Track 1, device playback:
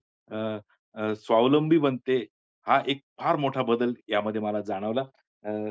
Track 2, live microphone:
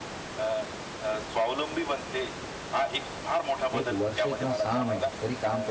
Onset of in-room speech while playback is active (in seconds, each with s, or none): 3.8 s